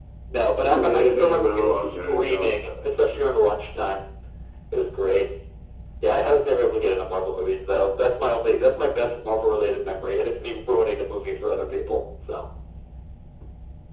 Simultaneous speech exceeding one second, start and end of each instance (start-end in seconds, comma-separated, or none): 0.7-2.5